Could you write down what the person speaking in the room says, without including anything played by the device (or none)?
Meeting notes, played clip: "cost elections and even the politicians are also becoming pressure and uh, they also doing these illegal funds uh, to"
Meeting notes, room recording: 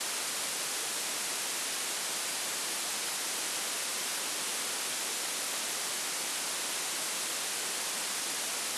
none